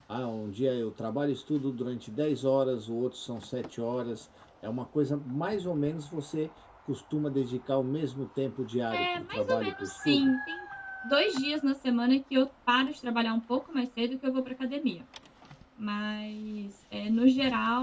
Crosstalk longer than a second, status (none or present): present